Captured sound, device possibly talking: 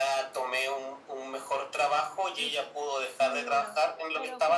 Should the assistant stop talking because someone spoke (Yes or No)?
Yes